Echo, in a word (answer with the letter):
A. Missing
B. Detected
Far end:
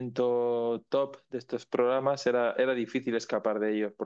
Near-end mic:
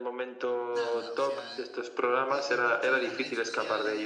B